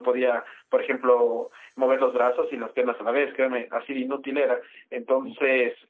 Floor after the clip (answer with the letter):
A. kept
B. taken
A